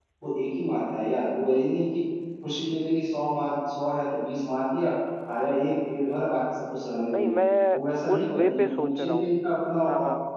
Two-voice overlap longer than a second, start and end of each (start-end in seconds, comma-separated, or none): 8.1-9.4